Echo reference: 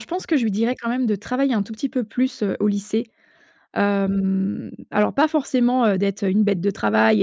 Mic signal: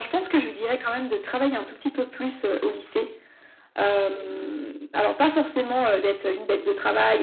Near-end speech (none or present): none